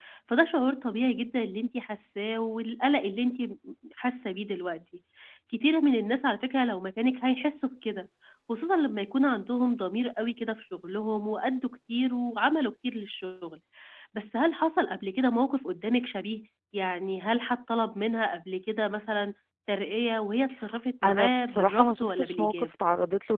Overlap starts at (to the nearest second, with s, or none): 21 s